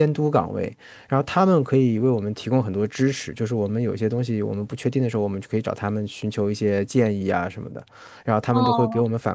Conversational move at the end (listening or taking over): listening